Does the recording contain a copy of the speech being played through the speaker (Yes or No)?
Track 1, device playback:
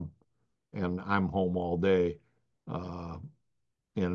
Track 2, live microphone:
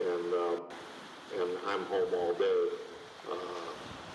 Yes